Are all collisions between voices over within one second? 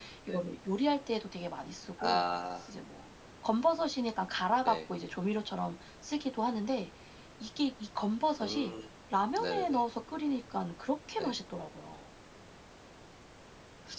Yes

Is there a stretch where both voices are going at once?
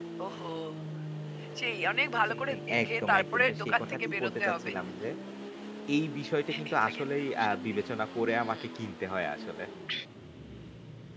Yes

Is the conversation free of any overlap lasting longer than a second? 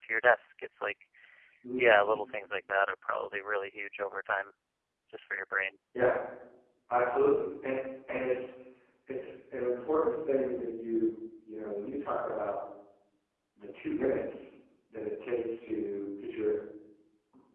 Yes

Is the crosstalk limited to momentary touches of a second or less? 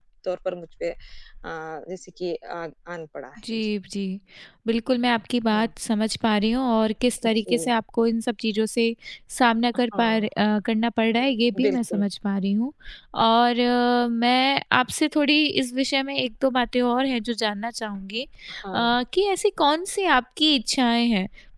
Yes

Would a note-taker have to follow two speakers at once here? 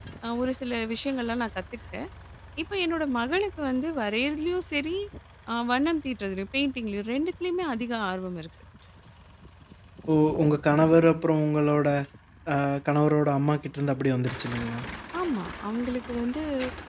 No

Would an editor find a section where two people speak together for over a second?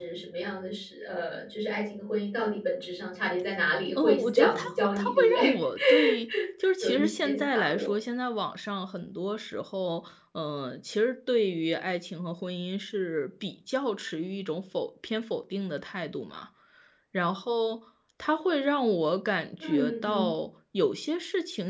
Yes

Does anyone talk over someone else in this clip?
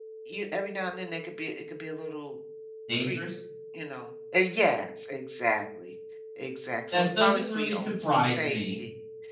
Yes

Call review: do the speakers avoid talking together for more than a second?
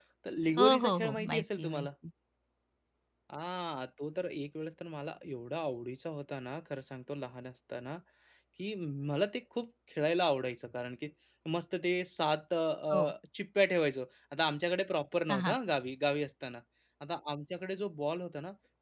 No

